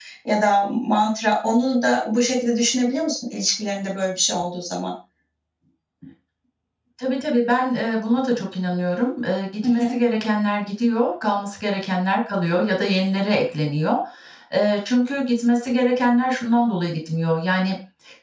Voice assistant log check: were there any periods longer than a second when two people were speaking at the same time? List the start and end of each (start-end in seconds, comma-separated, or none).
none